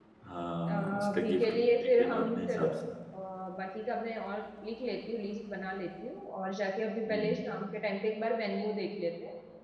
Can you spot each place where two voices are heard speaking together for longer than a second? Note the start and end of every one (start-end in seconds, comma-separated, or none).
0.7-2.7